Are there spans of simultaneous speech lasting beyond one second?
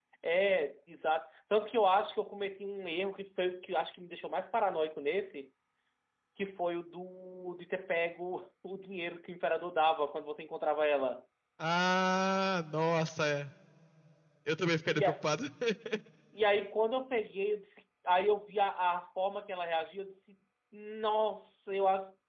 No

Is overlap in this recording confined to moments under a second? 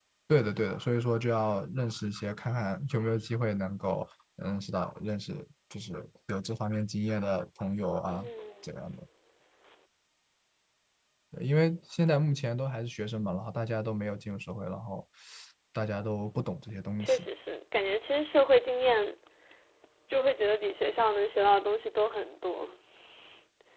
Yes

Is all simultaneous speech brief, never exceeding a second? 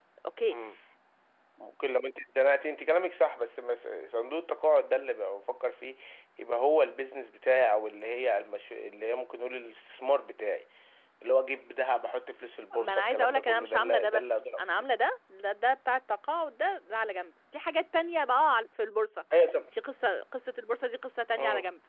No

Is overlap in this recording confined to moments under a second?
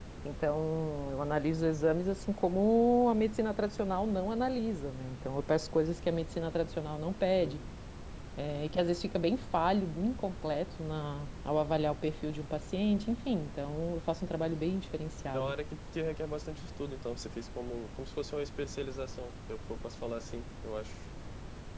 Yes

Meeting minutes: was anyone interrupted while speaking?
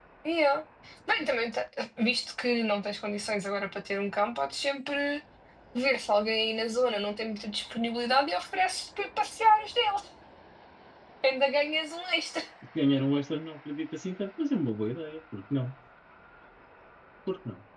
No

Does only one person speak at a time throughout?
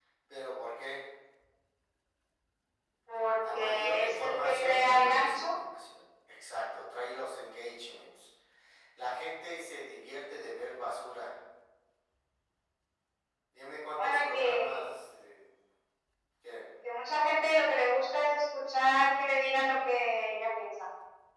No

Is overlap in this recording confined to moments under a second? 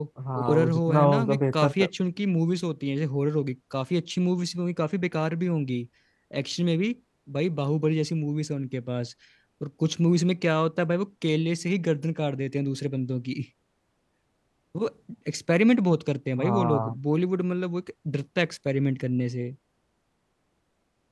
No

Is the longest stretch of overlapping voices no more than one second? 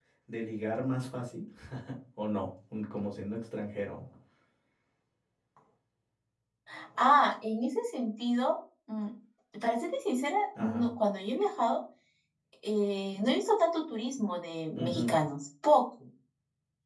Yes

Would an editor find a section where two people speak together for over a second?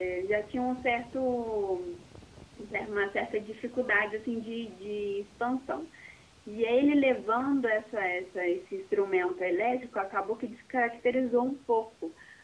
No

